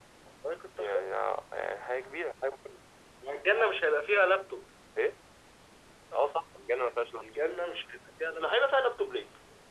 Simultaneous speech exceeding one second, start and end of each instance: none

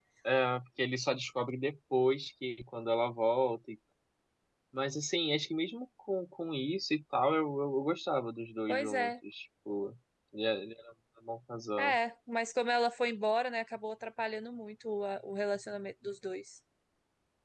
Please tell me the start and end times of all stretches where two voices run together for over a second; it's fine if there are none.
none

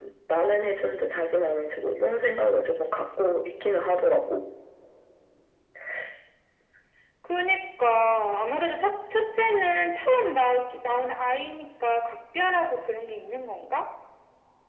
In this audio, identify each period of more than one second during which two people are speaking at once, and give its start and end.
none

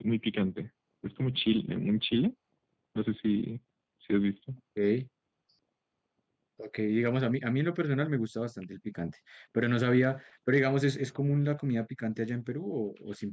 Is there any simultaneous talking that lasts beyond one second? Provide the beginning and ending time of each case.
none

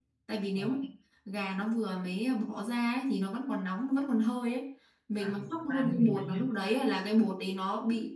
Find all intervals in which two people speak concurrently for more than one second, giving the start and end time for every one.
5.2-6.4

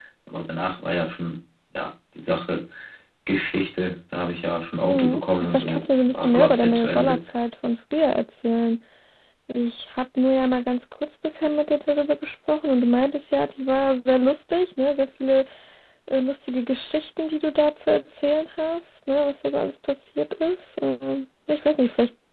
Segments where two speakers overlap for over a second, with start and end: 4.8-7.2

